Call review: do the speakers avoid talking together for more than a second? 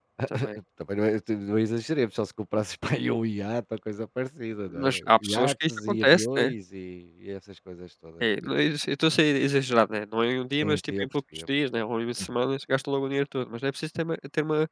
No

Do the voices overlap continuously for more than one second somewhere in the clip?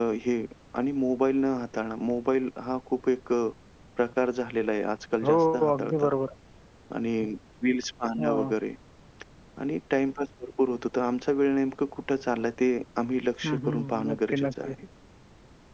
Yes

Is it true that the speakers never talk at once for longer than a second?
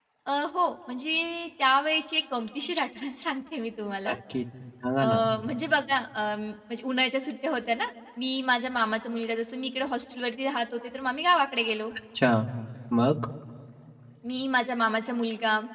Yes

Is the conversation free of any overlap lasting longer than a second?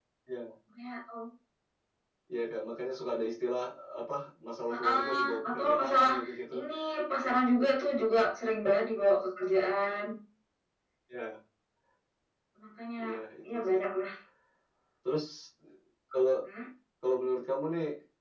No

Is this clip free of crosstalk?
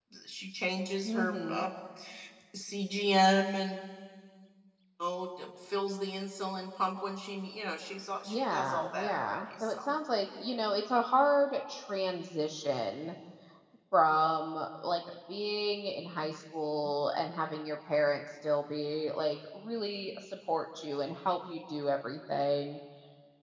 No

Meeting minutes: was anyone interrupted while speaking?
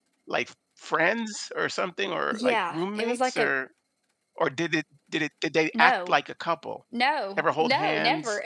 Yes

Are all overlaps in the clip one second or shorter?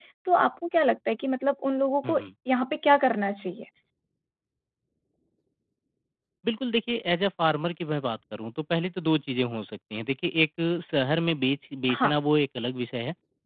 Yes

